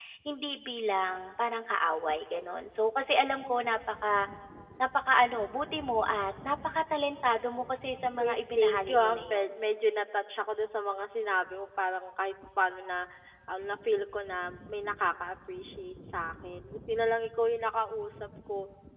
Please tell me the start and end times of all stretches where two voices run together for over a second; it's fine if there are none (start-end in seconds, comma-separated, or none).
8.2-9.5